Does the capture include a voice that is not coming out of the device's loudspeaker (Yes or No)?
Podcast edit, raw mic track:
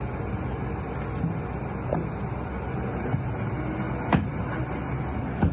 No